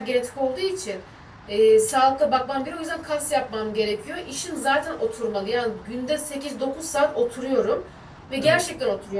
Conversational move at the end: listening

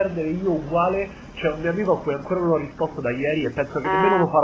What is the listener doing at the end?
listening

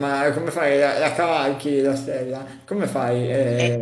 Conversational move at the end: taking over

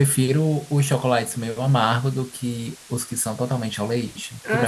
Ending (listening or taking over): taking over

